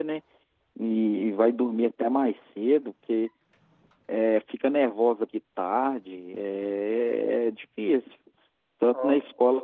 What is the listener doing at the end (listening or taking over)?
listening